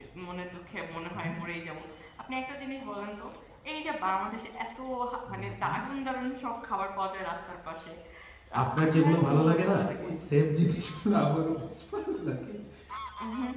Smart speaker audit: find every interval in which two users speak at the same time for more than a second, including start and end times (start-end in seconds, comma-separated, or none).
8.6-10.1